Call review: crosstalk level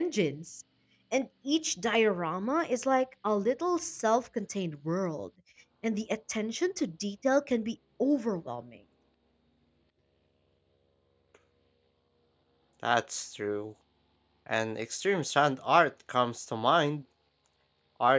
none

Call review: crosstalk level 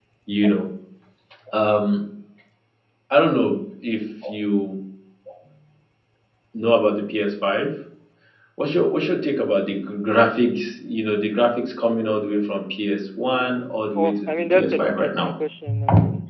present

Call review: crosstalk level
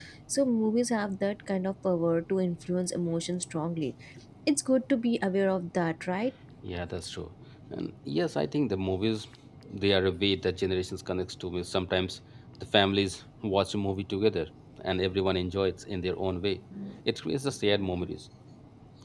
none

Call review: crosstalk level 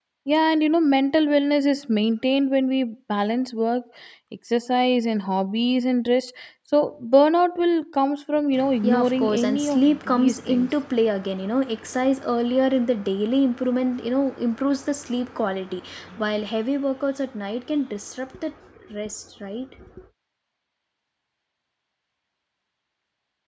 present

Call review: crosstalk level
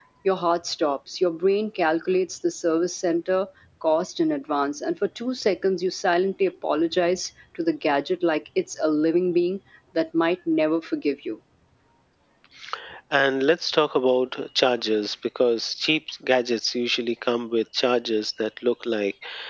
none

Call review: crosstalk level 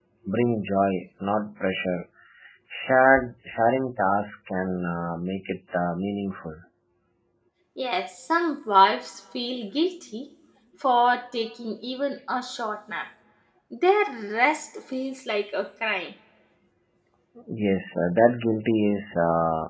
none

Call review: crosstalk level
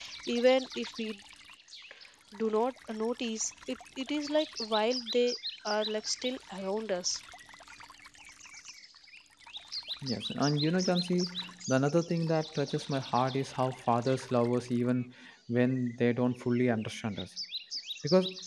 none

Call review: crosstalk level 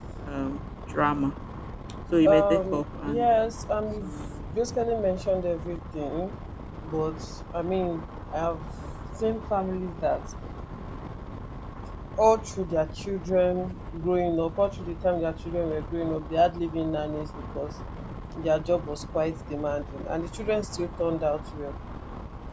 present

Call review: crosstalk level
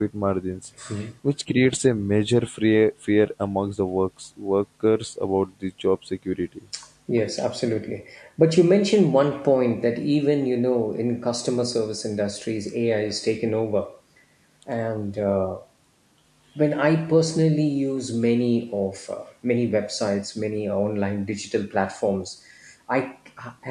none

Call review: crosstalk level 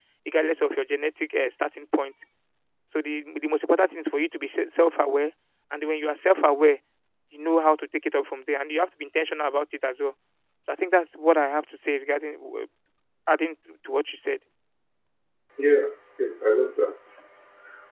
none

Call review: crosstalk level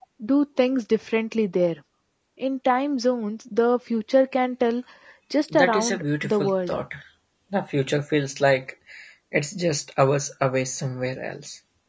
present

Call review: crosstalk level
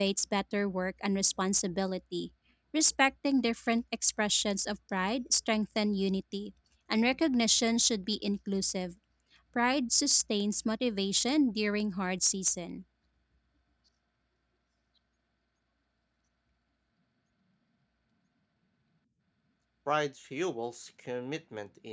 none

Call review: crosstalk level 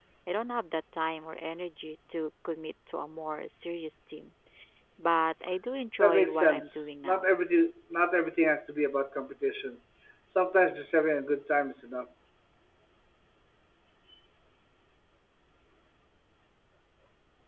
present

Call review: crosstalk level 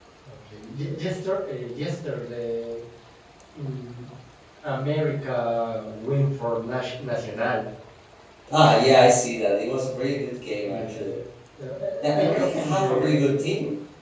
present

